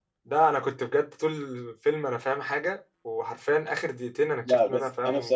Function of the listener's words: taking over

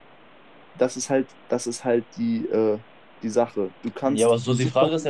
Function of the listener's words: taking over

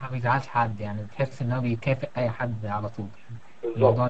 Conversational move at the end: taking over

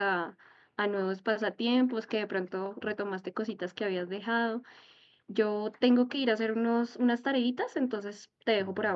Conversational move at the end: taking over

